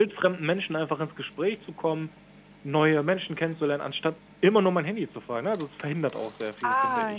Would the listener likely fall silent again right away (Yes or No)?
No